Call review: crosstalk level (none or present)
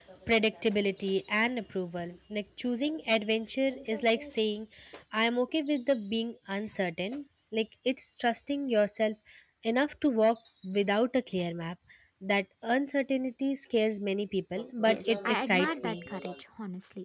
present